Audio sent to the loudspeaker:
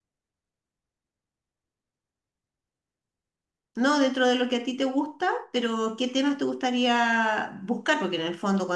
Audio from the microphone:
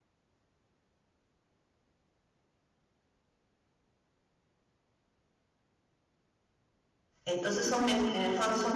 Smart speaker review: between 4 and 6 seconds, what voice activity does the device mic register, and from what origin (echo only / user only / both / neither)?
neither